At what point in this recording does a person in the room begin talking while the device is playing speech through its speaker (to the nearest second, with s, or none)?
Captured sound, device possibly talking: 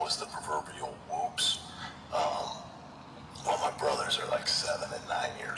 none